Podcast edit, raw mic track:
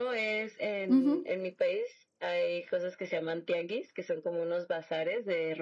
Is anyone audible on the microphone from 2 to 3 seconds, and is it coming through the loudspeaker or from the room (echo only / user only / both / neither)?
echo only